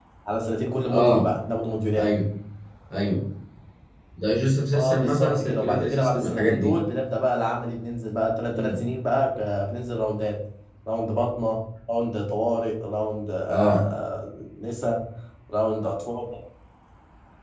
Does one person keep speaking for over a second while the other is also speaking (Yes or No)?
Yes